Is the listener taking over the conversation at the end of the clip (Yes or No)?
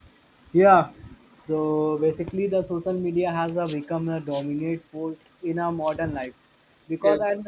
No